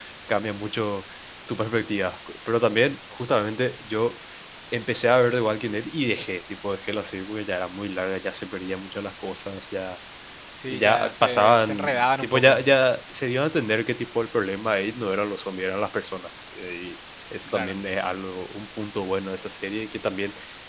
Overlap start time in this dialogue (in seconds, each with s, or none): 10.7 s